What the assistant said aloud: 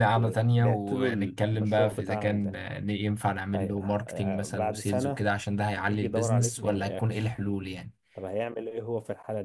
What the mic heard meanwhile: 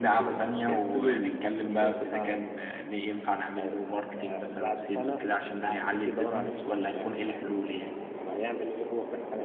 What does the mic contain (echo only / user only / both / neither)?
echo only